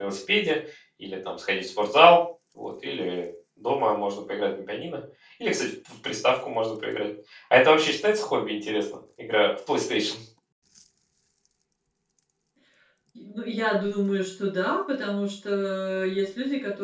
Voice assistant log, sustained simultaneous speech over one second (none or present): none